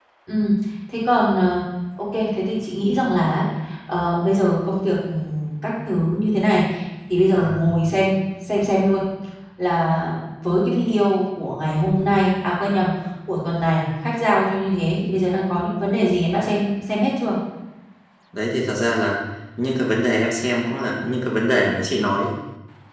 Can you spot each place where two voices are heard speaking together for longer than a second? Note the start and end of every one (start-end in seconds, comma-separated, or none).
none